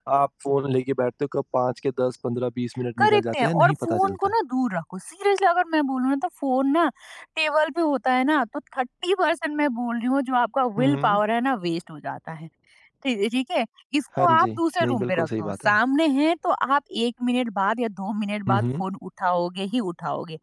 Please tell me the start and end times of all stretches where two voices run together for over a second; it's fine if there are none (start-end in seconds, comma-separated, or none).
3.0-4.3, 14.2-15.8